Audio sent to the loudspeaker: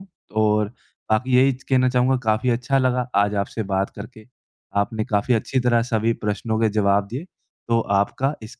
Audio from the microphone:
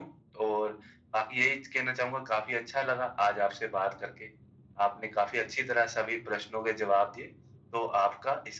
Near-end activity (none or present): none